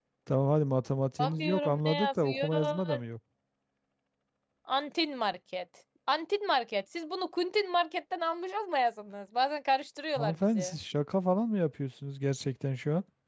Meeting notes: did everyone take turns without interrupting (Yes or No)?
No